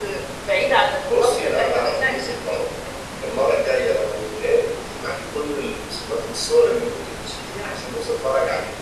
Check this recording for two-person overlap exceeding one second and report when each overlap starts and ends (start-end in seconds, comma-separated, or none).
1.1-2.6